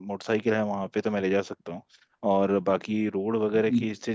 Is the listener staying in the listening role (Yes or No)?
Yes